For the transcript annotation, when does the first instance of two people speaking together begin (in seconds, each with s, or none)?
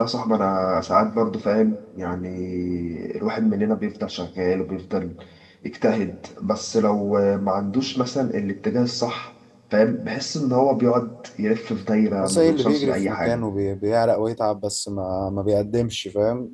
12.2 s